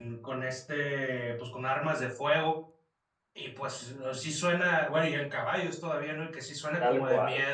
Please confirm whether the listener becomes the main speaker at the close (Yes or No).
No